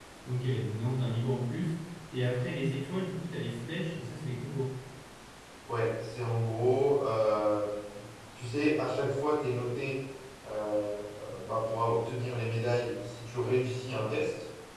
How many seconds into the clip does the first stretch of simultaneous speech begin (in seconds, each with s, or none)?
none